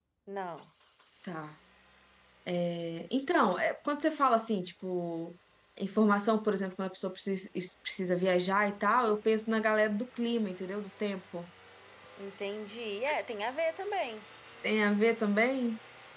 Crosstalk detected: No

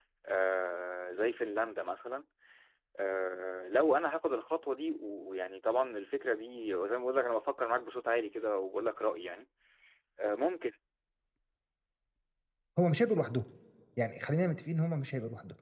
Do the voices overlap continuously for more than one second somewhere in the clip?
No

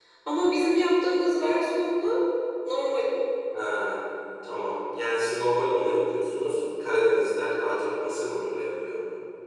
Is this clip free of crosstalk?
Yes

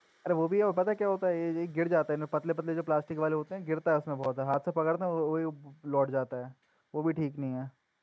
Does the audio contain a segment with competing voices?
No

